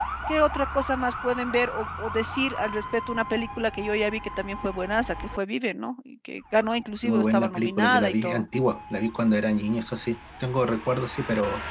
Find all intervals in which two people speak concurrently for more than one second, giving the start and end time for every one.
7.0-8.4

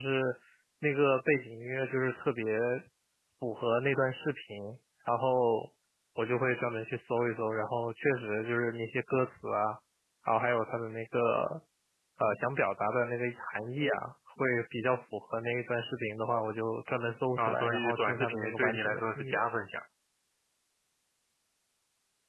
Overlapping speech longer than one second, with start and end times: 17.4-19.4

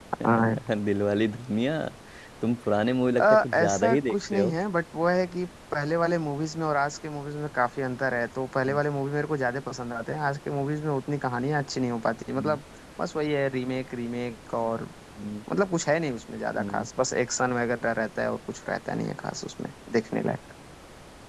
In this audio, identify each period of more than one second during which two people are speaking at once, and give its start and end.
3.2-4.5

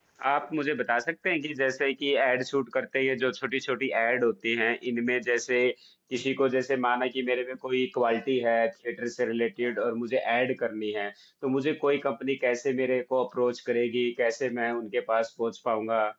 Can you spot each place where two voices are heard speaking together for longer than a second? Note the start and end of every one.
none

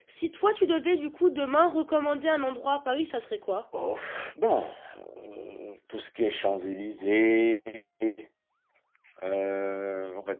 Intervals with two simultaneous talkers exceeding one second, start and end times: none

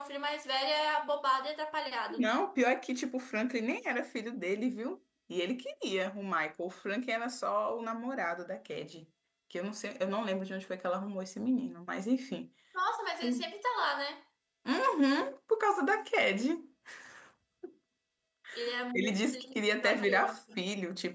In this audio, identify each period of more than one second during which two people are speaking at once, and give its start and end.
18.9-20.6

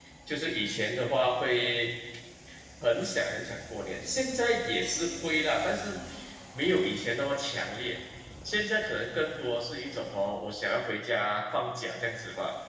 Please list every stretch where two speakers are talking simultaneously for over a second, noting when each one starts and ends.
none

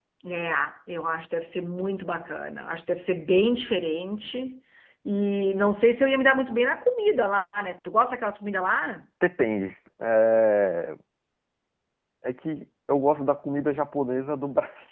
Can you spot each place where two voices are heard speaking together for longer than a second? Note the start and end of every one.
none

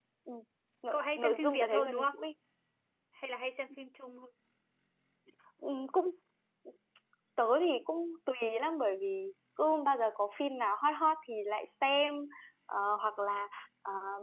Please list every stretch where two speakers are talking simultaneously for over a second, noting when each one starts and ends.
0.9-2.1

